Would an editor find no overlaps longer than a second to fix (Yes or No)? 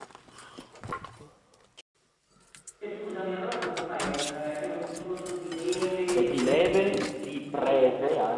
No